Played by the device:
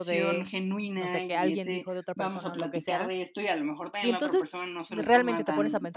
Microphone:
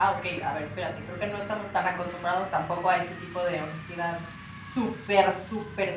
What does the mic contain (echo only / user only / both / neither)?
user only